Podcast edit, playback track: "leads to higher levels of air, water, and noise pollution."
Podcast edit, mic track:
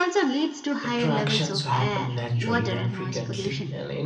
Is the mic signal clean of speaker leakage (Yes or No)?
No